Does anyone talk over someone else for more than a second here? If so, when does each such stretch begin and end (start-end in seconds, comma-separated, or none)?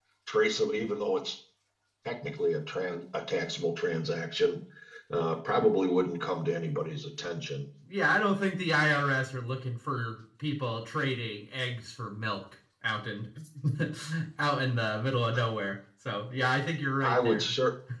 none